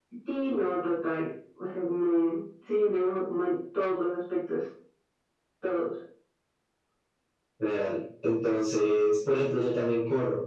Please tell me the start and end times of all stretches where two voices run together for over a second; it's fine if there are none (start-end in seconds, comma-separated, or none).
none